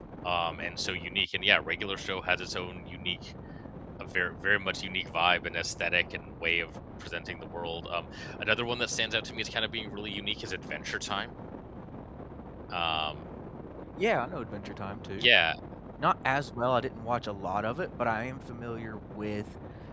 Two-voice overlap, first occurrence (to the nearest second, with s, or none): none